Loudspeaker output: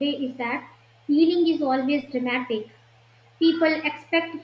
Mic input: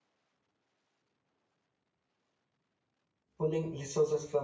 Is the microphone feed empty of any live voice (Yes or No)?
No